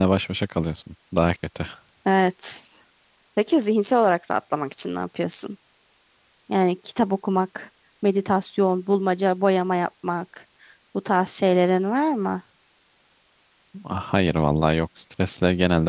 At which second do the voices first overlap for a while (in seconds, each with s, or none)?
none